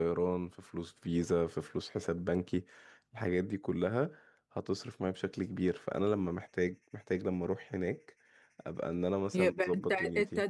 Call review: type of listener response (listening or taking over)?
taking over